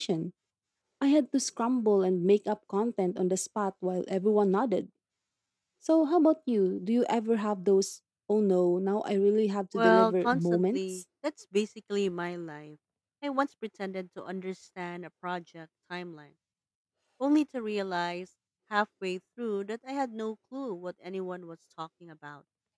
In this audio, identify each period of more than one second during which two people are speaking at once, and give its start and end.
9.7-11.0

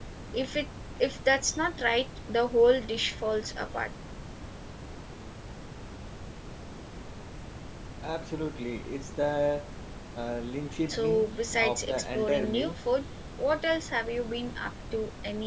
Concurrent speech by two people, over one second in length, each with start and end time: 10.9-12.8

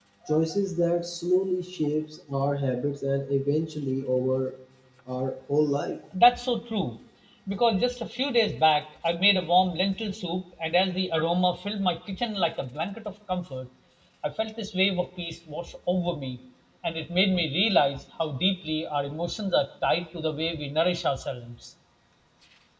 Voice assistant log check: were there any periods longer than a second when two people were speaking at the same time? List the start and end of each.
none

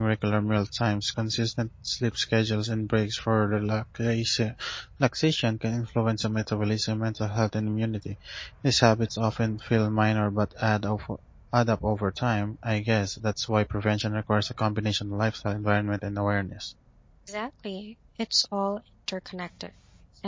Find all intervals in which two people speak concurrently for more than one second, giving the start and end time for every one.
none

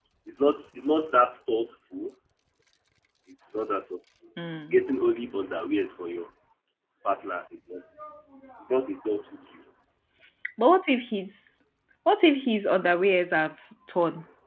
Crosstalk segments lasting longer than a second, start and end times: none

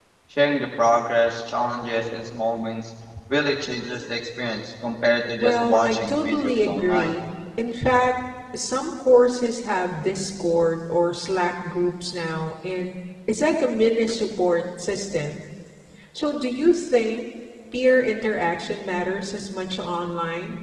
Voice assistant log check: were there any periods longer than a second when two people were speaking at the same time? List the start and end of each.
5.4-7.2

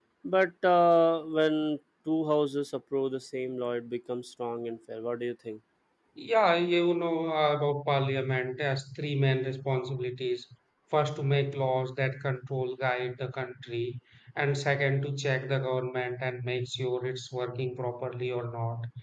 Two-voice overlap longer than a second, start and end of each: none

